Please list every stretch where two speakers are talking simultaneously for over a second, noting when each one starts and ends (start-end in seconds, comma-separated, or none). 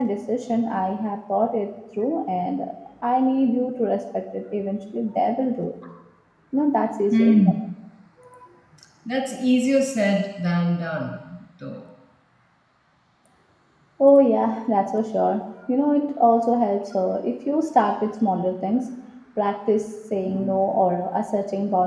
none